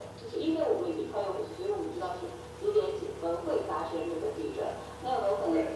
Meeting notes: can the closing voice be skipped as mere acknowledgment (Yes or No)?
Yes